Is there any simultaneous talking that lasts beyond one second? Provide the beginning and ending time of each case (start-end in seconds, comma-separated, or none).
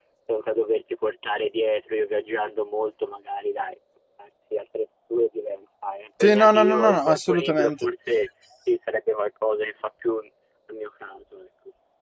6.2-7.7